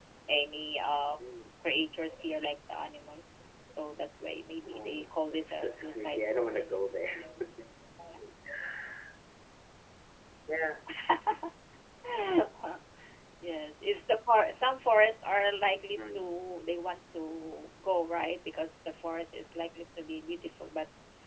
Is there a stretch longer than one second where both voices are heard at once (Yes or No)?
Yes